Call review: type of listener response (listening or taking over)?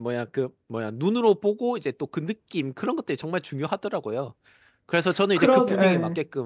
listening